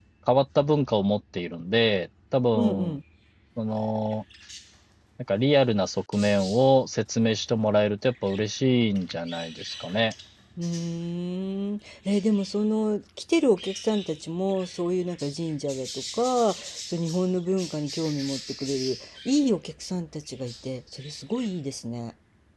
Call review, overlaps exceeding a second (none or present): none